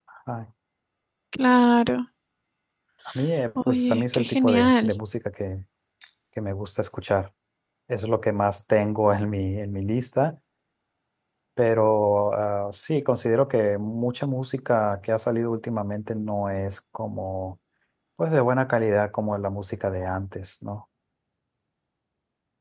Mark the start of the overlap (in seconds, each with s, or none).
3.6 s